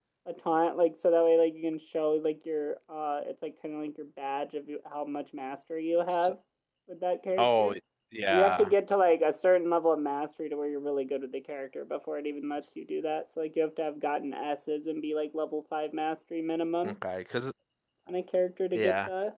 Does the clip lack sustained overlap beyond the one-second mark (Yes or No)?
Yes